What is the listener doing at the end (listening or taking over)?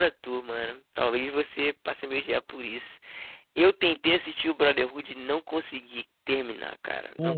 listening